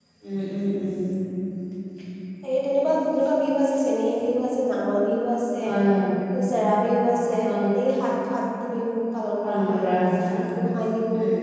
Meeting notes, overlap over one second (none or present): none